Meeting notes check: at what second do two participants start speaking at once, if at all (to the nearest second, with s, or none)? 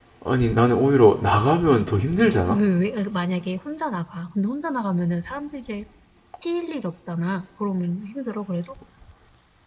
none